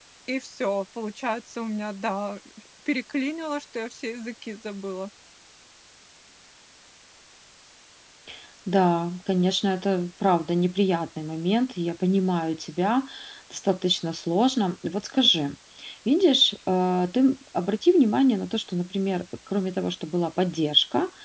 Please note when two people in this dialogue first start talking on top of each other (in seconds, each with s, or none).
none